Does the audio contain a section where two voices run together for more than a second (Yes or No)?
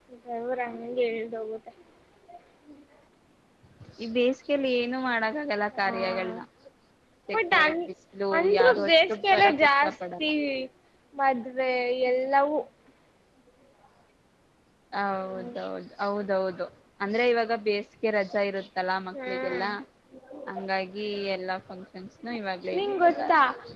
Yes